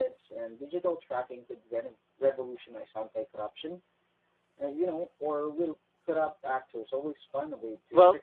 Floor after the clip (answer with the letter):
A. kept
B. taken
B